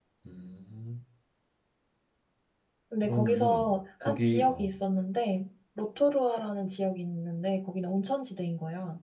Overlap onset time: 3 s

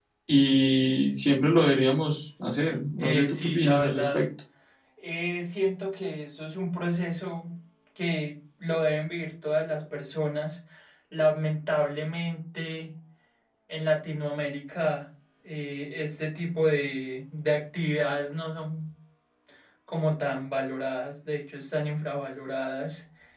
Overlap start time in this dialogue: 3 s

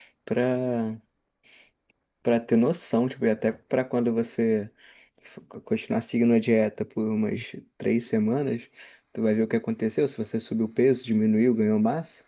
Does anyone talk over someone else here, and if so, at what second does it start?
none

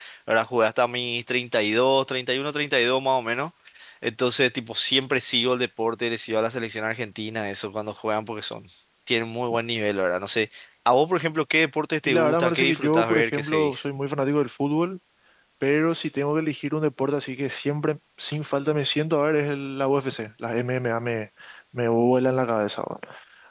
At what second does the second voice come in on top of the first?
12 s

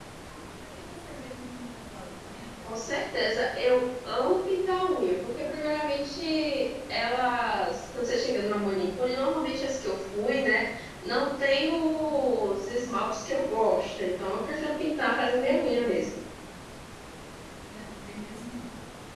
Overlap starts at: none

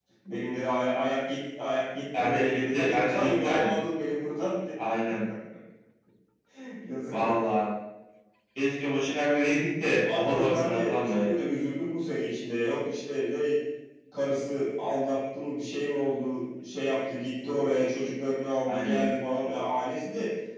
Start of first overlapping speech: 2 s

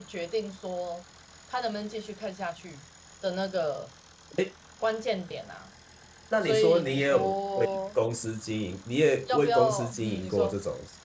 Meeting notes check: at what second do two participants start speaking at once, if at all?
6 s

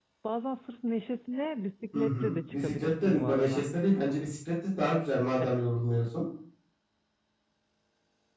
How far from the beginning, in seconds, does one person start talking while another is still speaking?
2 s

